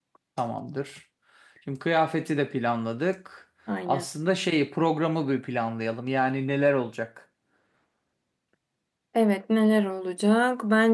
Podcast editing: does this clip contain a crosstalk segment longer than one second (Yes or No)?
No